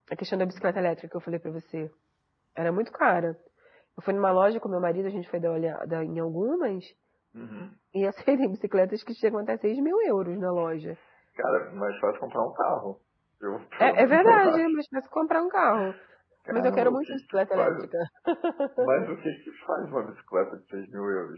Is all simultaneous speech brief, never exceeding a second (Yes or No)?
No